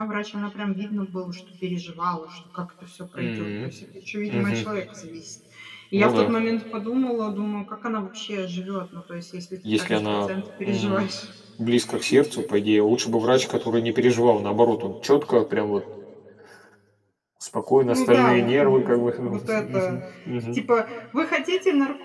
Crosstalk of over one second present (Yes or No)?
Yes